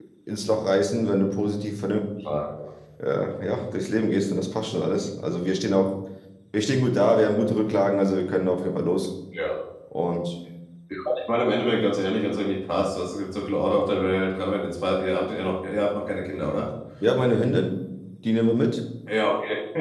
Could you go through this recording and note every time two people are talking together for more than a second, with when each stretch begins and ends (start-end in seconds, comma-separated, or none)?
none